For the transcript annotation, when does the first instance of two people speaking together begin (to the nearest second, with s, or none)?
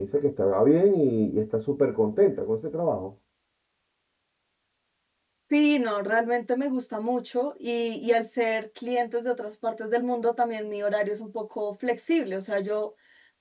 none